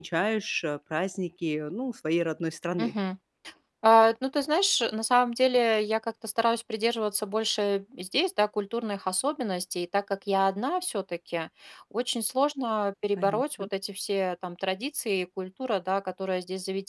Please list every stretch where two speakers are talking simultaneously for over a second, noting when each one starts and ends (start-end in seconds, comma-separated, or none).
none